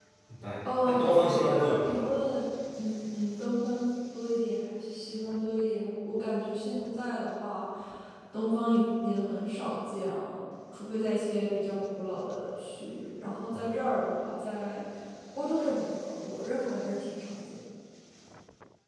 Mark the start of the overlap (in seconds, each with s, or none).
0.8 s